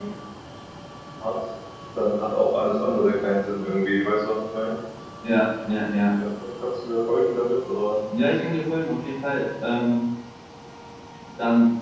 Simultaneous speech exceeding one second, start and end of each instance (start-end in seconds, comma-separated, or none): none